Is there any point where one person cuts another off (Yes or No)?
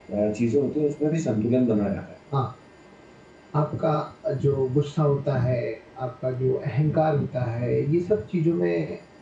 No